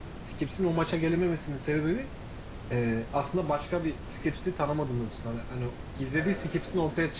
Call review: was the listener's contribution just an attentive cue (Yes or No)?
Yes